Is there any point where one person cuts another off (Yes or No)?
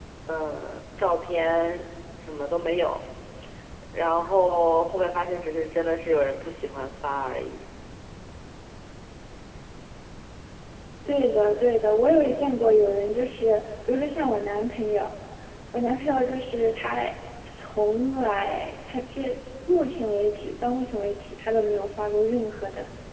No